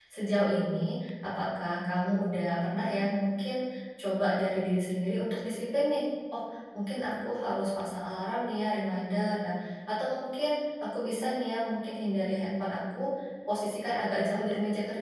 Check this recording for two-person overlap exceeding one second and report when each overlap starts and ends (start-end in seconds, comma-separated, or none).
none